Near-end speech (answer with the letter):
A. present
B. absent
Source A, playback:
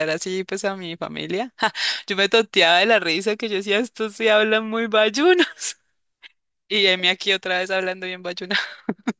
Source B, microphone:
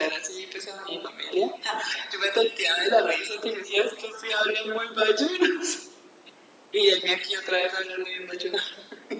B